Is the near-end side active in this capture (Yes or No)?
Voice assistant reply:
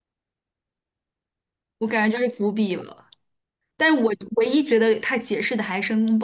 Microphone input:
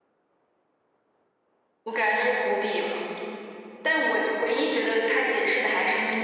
No